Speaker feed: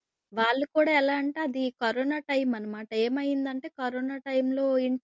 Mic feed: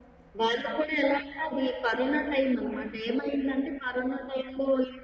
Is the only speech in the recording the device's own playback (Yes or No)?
Yes